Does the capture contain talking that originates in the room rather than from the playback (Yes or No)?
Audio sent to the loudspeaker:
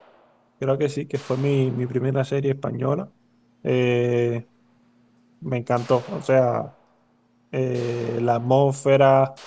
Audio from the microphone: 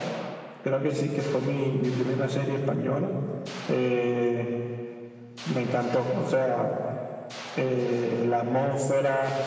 No